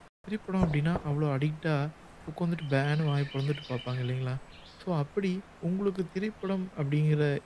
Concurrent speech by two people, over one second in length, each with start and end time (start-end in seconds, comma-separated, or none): none